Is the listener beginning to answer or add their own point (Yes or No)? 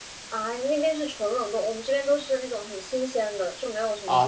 Yes